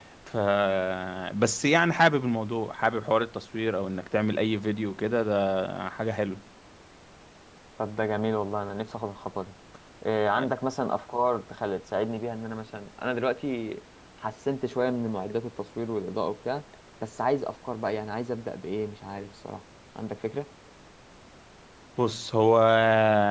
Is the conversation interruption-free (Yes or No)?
Yes